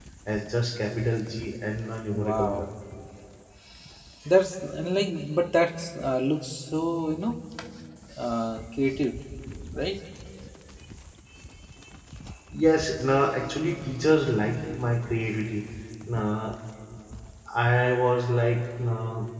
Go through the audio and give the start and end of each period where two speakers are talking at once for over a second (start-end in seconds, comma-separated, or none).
none